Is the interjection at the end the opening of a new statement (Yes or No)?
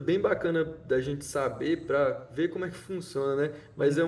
No